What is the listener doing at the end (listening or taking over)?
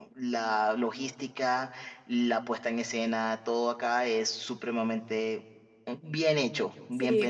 taking over